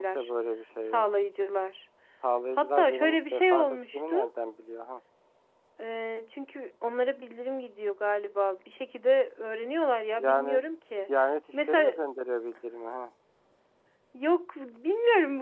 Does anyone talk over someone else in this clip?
Yes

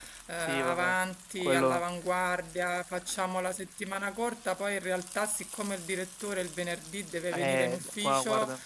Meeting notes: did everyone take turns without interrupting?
No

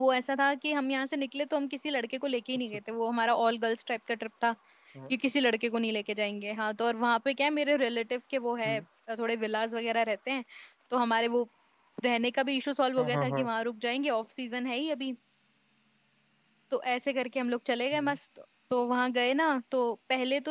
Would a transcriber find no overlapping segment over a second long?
Yes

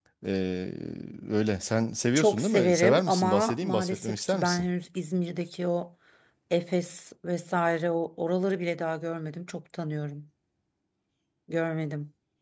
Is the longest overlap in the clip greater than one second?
Yes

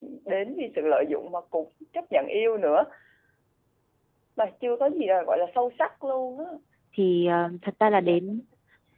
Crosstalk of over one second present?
No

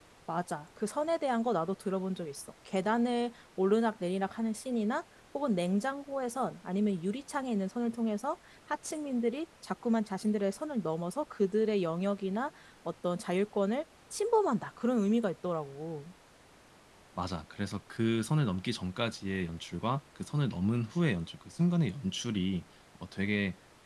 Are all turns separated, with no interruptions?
Yes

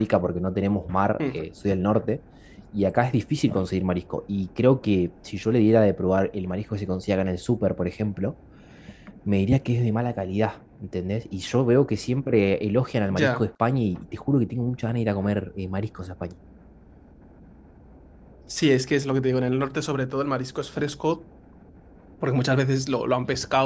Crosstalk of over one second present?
No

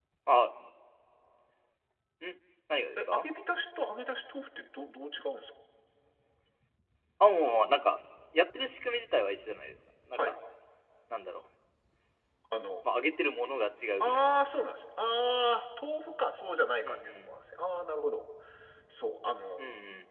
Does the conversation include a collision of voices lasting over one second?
No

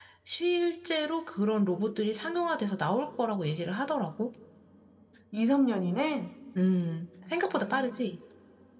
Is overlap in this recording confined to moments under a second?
Yes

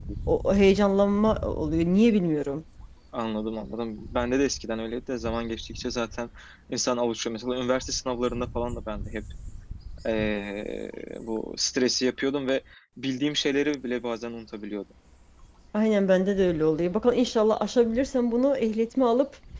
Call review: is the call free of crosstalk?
Yes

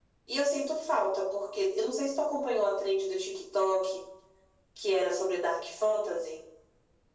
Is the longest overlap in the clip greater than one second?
No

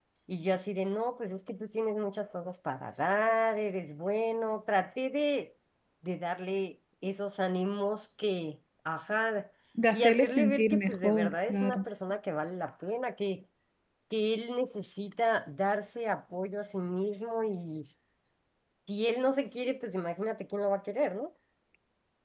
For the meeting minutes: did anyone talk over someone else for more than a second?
Yes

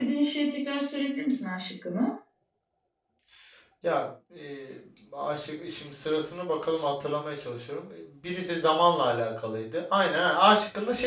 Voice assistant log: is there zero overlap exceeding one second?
Yes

